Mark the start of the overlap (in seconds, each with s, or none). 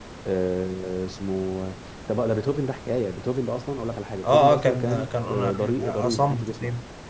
4.2 s